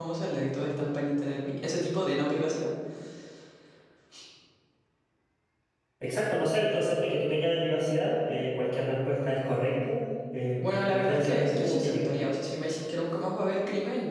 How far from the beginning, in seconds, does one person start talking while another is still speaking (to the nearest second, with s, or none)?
11 s